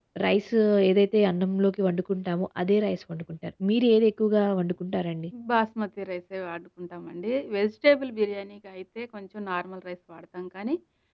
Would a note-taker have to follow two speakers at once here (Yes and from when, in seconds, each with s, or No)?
No